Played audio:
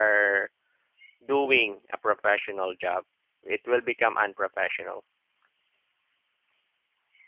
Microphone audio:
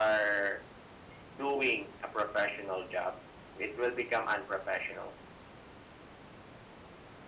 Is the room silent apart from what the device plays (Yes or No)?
Yes